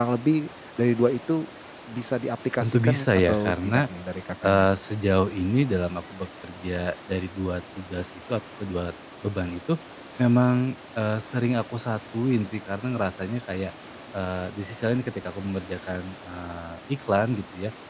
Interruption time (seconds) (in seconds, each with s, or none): 2.6 s